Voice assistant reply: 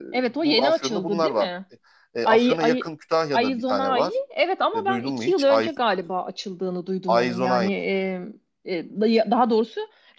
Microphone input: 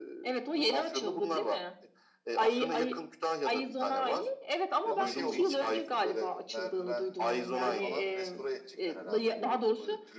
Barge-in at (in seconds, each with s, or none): 4.9 s